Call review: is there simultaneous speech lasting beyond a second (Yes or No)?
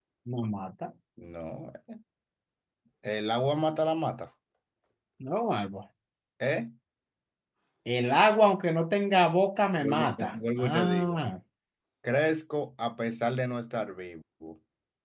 Yes